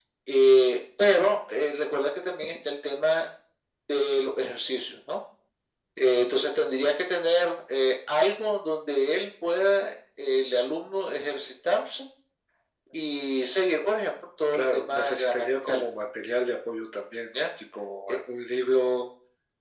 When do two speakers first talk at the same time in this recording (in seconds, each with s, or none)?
14.5 s